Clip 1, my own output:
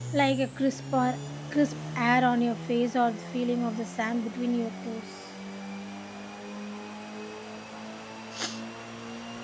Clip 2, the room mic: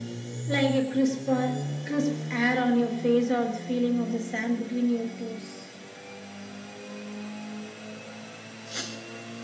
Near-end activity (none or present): none